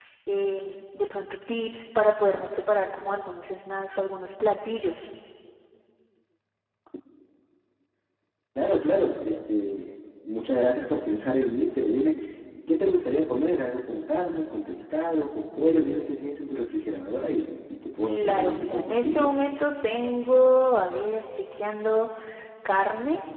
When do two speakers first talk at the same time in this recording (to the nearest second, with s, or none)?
18 s